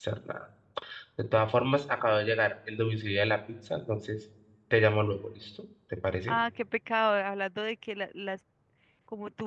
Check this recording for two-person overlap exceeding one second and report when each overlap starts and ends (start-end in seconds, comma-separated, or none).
none